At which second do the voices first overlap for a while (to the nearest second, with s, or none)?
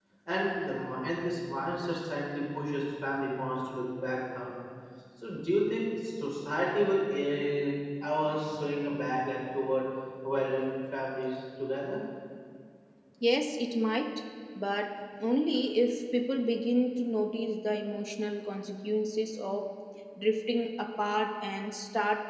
none